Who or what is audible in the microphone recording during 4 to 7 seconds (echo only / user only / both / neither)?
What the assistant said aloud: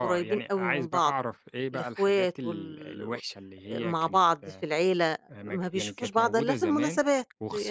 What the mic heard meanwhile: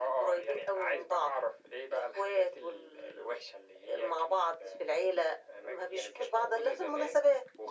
echo only